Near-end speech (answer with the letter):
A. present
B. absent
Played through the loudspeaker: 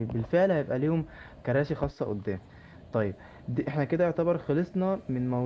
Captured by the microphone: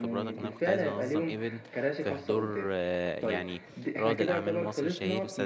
A